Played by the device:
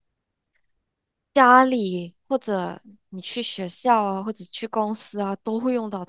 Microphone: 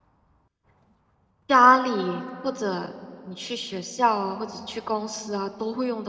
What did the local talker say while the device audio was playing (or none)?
none